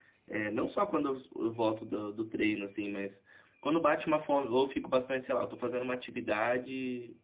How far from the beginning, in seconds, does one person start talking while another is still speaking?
none

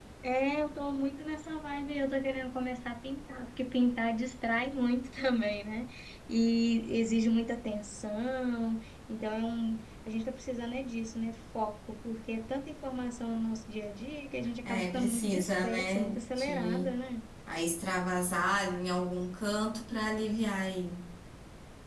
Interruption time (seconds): 14.7 s

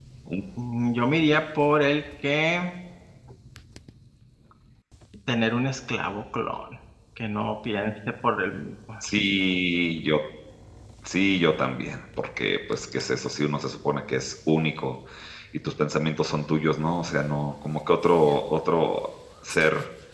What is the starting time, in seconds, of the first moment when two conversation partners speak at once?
none

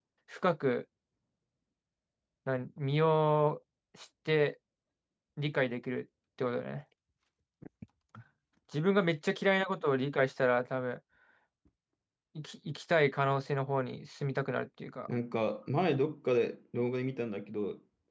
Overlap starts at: none

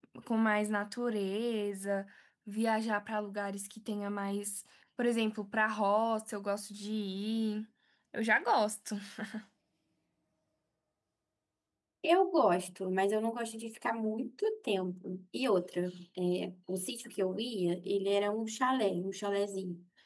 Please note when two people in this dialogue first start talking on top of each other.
none

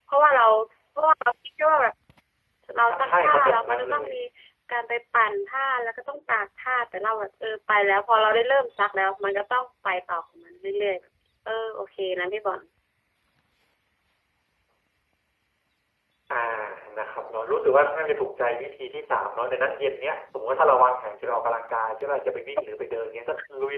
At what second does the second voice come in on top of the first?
2.9 s

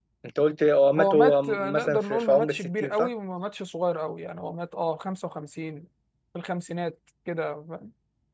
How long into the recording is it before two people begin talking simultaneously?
1.0 s

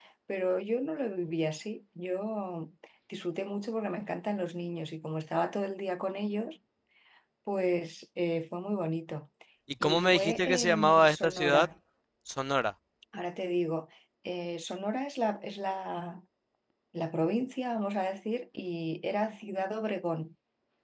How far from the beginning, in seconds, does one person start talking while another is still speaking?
9.8 s

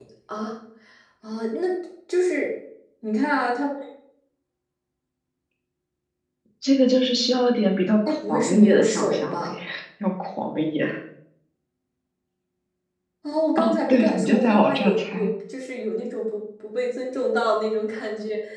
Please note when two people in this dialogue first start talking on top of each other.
8.3 s

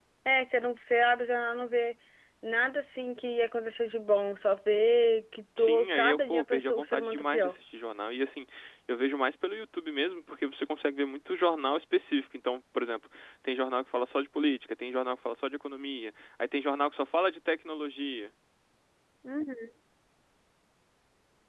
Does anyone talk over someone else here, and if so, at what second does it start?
5.6 s

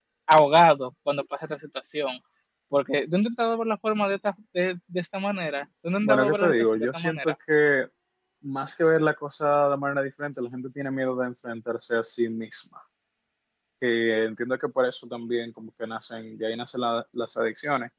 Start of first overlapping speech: 6.0 s

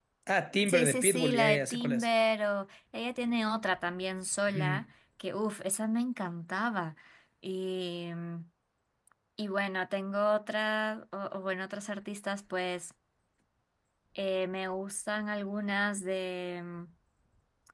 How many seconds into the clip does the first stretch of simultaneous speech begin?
0.7 s

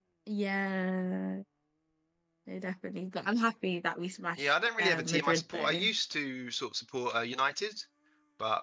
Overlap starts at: 4.4 s

